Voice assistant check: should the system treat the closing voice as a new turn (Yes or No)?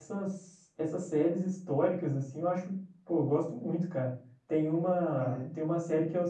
No